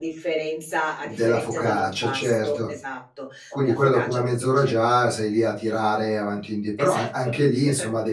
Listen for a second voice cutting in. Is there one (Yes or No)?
Yes